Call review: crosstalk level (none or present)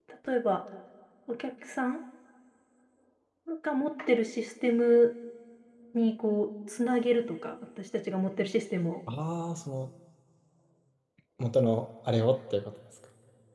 none